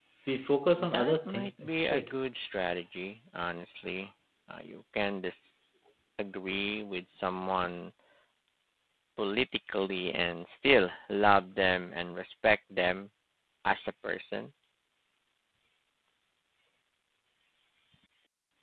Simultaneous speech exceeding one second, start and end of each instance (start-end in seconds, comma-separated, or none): 0.8-2.1